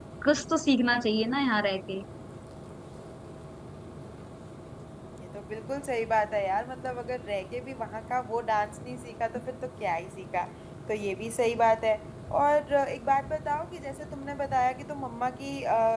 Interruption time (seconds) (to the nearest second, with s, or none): none